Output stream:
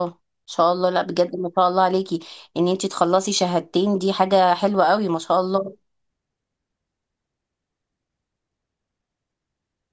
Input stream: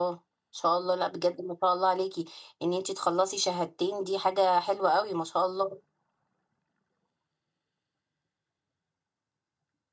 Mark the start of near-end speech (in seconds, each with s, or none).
none